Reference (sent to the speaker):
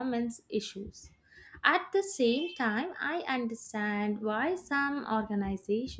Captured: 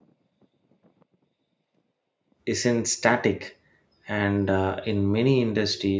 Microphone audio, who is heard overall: user only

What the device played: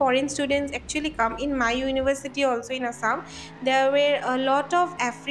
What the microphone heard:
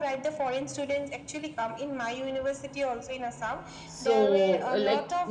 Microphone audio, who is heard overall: both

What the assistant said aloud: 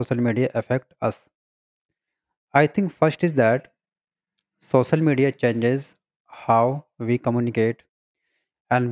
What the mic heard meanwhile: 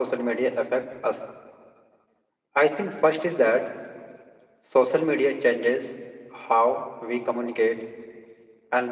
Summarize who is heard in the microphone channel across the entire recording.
echo only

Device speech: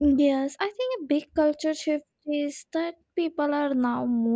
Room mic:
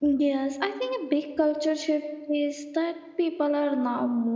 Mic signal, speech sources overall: echo only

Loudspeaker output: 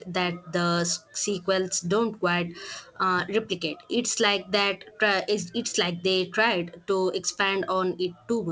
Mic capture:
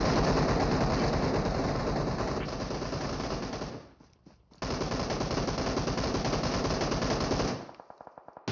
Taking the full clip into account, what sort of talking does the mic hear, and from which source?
neither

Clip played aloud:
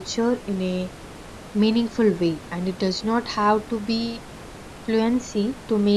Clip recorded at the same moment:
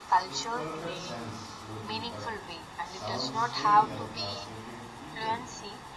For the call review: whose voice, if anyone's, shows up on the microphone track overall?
both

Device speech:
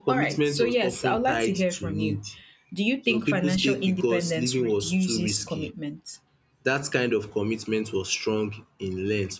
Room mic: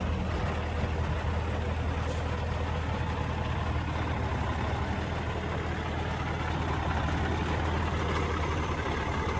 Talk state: neither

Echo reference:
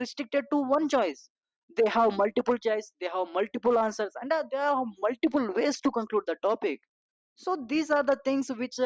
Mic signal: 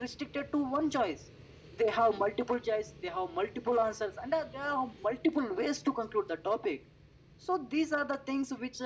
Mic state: echo only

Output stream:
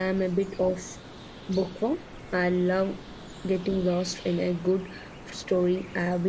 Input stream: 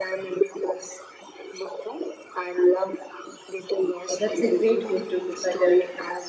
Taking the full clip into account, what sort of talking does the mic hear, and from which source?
both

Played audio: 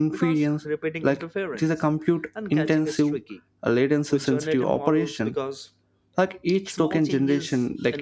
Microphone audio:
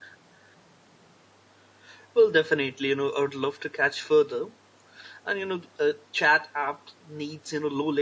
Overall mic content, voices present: user only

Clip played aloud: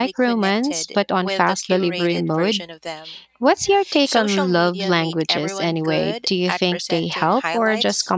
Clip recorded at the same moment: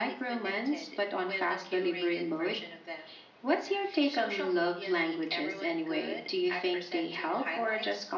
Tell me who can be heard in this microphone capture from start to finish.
echo only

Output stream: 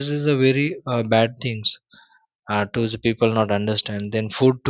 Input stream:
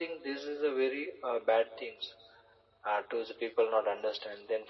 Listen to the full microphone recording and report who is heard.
echo only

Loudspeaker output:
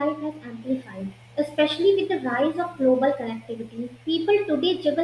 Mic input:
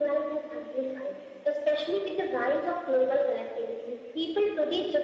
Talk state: echo only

